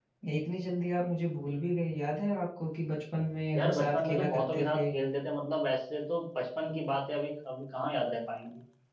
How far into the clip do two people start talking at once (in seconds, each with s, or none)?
3.5 s